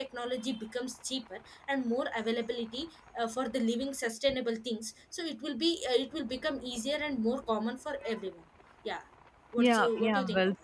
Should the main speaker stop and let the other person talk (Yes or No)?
Yes